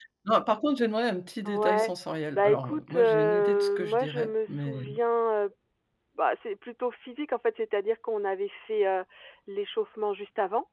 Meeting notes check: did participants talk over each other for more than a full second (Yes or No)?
Yes